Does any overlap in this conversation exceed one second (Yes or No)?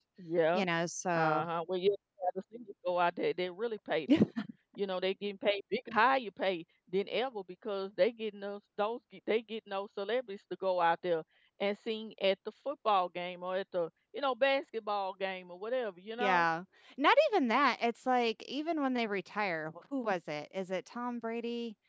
No